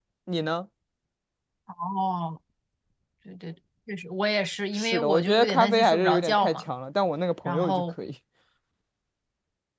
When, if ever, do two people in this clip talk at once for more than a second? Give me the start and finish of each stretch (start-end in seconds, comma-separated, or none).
4.8-6.7